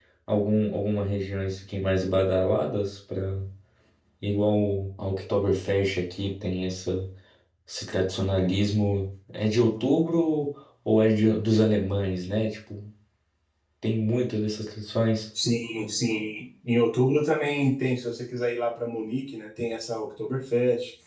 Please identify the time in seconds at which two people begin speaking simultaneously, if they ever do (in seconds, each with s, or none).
none